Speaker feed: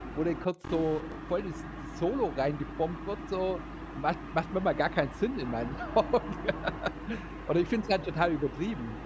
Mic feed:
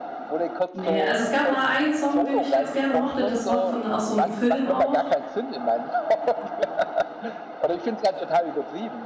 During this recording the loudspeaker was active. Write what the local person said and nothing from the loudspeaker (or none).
Ne, also, es gab mal 1 Song, den ich ganz gerne mochte. Das war von aus so 'nem Film auch.